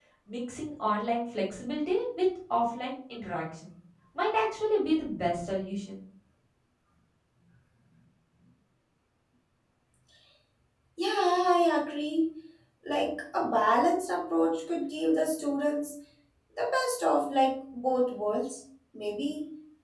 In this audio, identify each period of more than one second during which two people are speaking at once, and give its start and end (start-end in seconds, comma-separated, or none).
none